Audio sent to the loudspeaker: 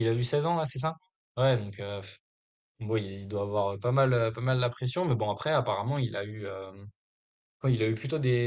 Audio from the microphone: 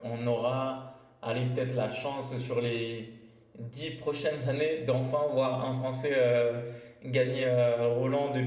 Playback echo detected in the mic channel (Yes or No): No